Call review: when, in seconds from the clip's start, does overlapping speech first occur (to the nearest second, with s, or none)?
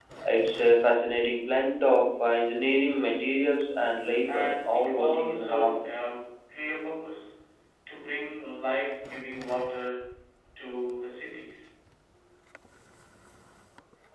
4 s